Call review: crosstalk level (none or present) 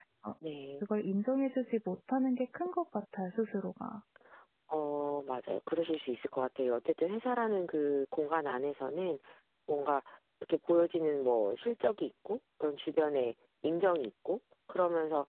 none